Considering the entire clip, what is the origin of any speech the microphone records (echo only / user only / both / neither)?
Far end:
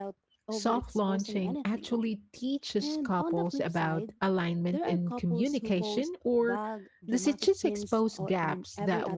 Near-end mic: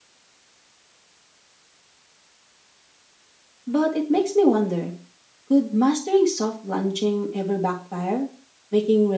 user only